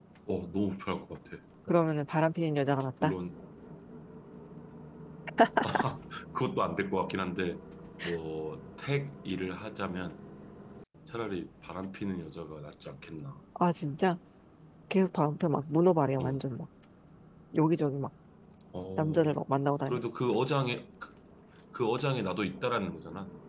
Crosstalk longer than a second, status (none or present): none